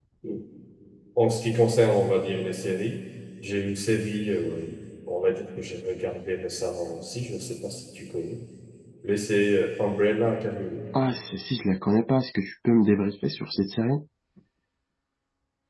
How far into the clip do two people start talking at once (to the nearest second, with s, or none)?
none